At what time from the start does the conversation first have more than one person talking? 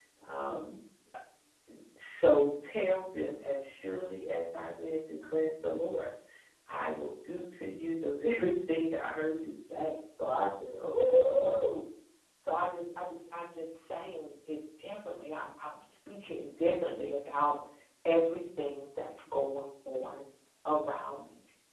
none

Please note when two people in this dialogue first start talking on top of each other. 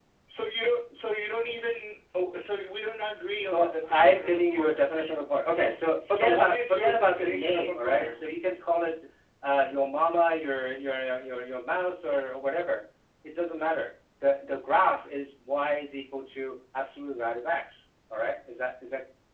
3.5 s

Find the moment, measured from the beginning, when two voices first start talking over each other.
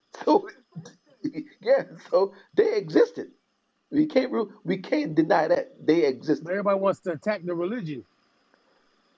none

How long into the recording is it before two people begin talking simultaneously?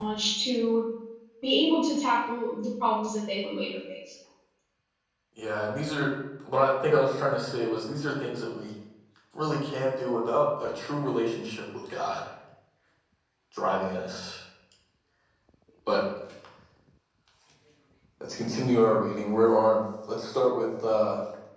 none

